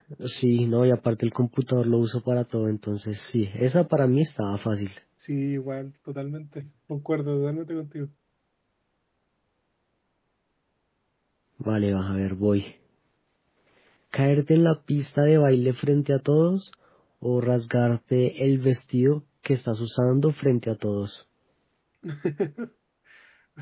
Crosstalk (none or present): none